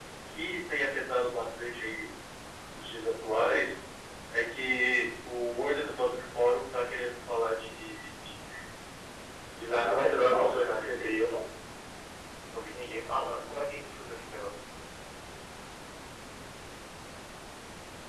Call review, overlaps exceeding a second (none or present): present